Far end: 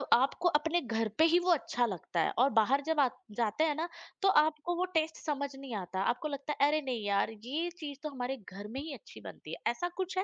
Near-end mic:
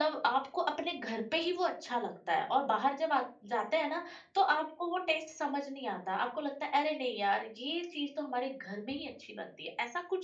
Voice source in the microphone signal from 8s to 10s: echo only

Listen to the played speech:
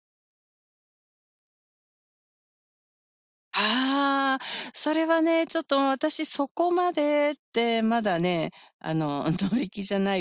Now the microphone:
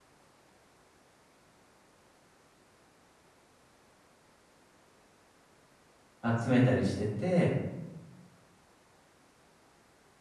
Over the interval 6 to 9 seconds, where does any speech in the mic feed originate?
user only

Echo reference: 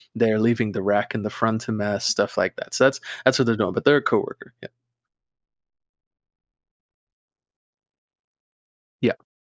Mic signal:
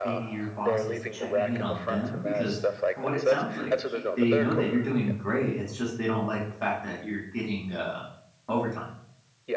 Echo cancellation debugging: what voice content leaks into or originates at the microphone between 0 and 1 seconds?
both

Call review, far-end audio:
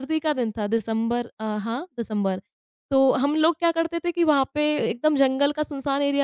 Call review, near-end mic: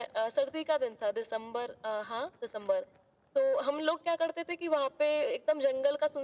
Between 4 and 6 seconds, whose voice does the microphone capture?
echo only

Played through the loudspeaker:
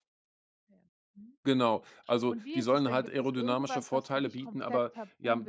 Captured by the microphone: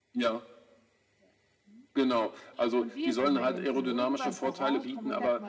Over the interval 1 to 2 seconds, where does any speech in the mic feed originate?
echo only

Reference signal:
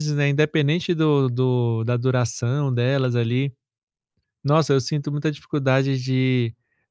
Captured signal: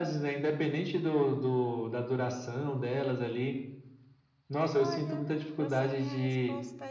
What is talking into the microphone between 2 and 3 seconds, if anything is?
echo only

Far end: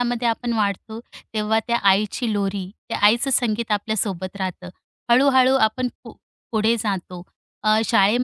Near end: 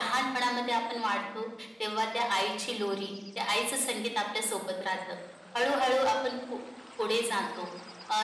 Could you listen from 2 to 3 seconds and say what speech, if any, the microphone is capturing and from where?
echo only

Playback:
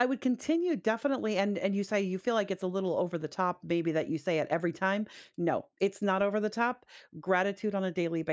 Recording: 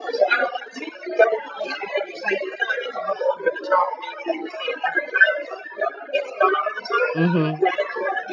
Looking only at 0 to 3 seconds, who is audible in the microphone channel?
echo only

